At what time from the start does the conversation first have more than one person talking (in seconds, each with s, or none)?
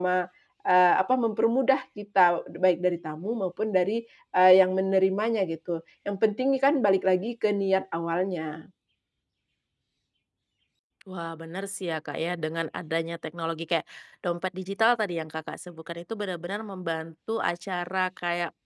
none